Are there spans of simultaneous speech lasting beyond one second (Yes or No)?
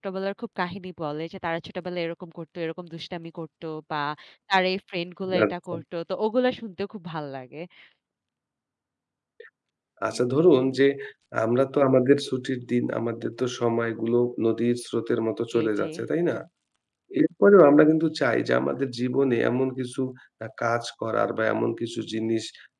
No